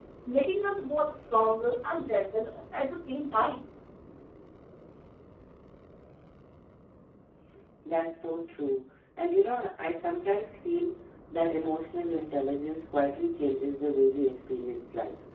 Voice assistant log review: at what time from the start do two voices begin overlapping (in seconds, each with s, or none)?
none